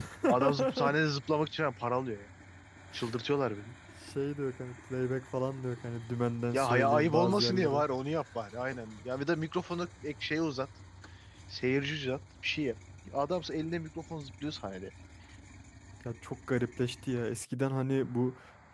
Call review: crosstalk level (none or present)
present